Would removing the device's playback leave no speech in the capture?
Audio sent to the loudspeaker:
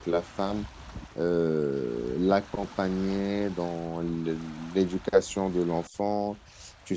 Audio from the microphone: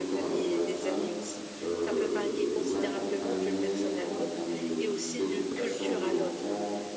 No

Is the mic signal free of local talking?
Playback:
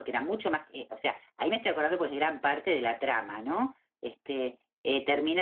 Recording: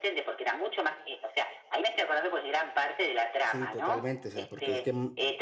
No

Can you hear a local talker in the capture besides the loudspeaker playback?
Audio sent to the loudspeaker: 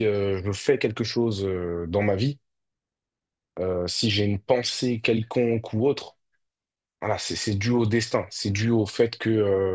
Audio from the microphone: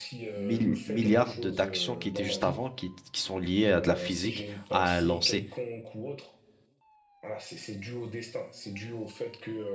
Yes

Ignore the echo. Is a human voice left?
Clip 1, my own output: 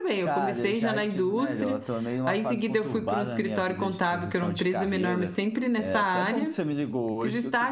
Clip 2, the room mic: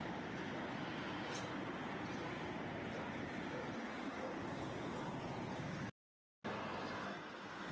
No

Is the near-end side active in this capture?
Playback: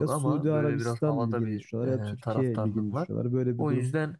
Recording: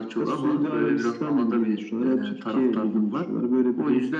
No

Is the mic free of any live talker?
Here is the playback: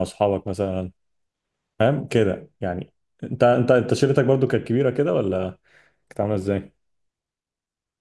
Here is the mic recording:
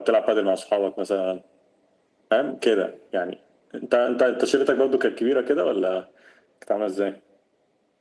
Yes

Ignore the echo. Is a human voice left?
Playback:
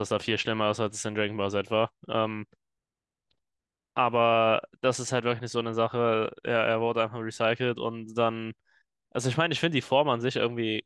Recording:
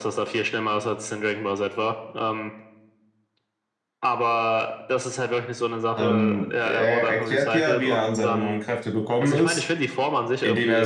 Yes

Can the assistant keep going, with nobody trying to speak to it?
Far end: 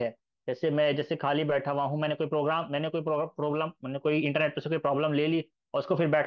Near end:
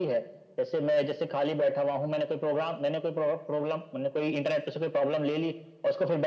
Yes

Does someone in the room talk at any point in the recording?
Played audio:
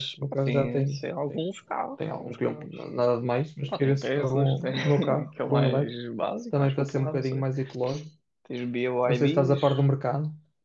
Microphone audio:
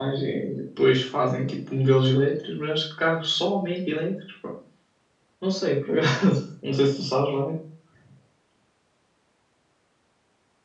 Yes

